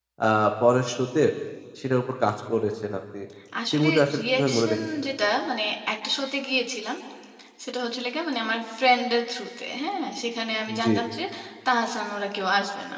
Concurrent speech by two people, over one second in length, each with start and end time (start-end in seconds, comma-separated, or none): 3.7-5.1